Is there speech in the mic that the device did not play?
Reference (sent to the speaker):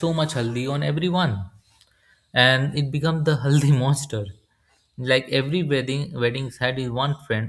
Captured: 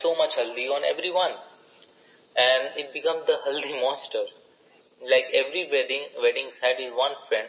No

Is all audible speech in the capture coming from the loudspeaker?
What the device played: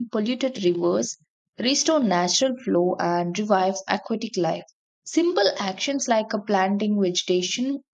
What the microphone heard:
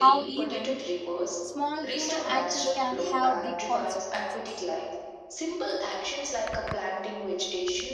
No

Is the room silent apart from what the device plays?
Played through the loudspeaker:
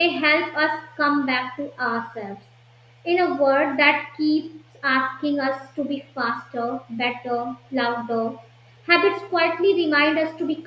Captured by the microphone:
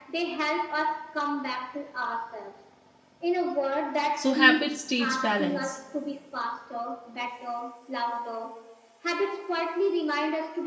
No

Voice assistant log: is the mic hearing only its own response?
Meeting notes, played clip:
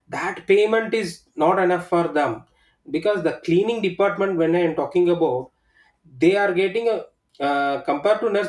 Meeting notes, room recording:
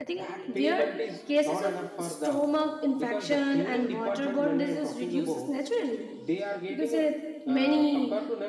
No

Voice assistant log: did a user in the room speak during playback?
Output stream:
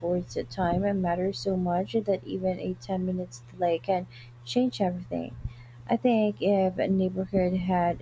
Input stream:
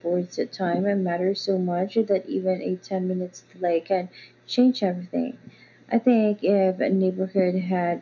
No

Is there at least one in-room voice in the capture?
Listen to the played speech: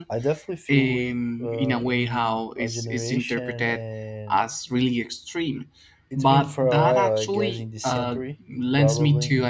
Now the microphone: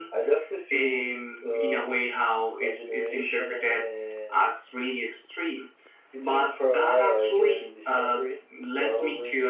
No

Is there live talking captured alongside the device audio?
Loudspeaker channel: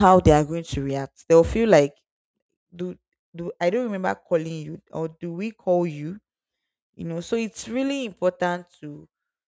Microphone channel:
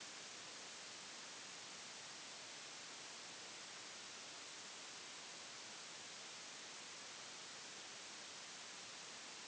No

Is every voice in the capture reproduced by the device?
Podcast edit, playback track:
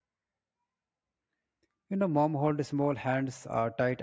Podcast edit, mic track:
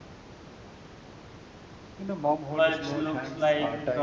No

